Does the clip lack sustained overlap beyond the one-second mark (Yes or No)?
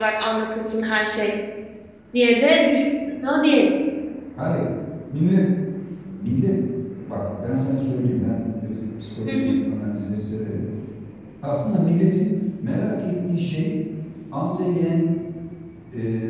Yes